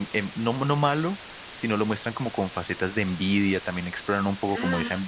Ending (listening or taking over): listening